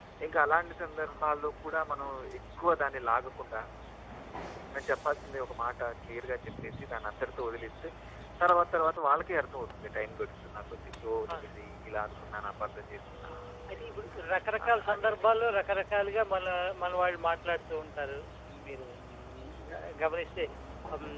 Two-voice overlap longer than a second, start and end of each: 14.7-15.9

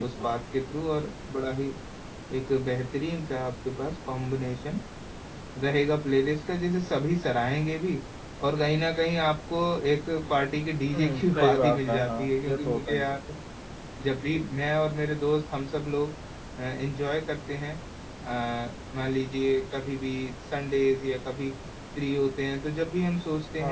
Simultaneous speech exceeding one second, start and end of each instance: 10.9-13.1

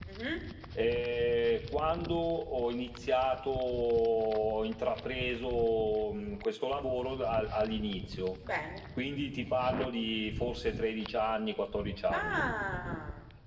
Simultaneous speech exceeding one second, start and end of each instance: none

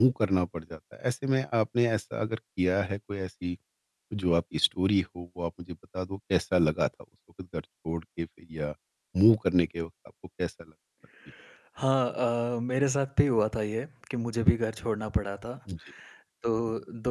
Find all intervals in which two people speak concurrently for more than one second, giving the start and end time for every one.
none

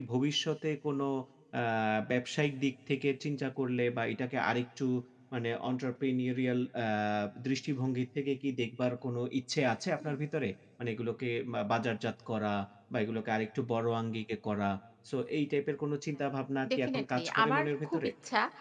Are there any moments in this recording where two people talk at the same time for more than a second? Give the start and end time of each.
16.8-18.1

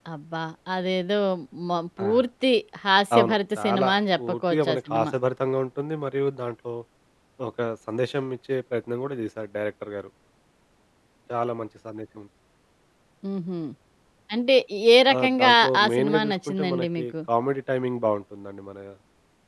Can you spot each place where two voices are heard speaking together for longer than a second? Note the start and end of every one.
3.1-5.1, 15.1-17.1

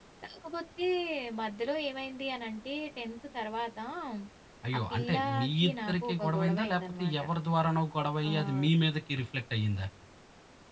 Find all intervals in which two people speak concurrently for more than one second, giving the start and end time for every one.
4.9-7.2

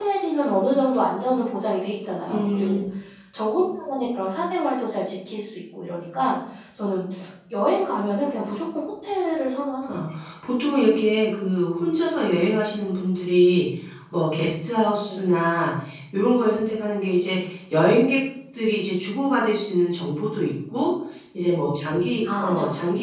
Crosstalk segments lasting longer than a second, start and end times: none

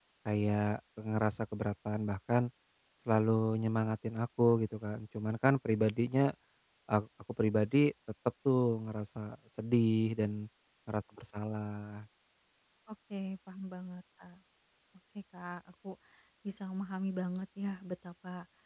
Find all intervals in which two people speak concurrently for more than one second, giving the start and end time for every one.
none

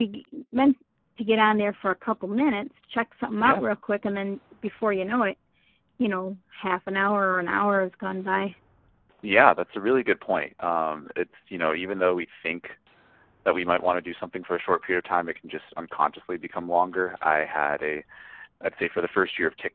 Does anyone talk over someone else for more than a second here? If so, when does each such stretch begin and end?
none

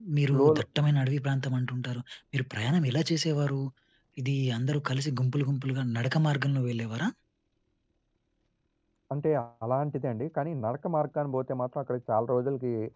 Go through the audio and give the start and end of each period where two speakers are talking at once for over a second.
none

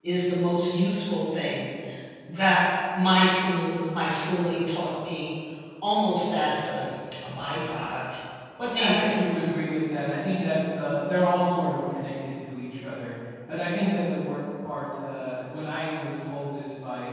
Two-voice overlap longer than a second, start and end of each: none

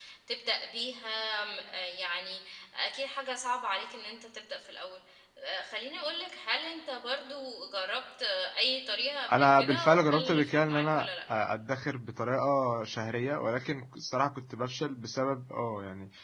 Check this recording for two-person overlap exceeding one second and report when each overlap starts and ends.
9.3-11.1

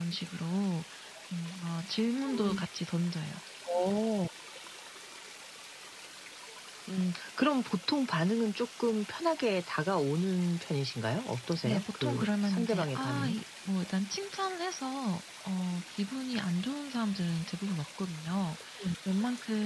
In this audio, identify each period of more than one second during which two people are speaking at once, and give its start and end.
11.6-13.3

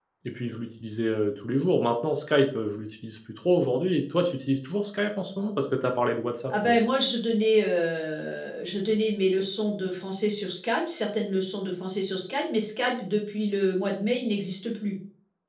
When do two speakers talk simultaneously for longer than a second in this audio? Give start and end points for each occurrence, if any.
none

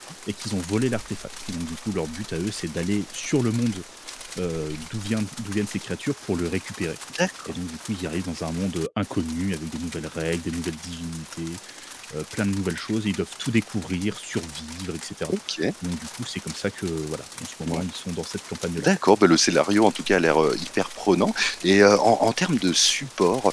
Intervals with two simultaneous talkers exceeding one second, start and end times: none

